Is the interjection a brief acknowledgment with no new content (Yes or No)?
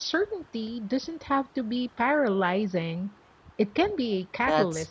No